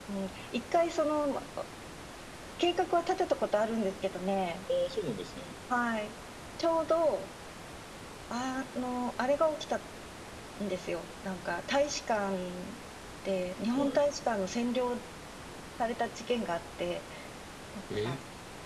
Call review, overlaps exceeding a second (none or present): none